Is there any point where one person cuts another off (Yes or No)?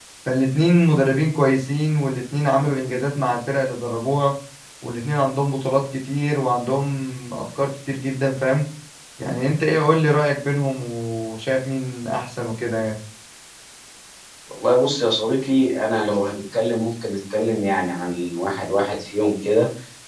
No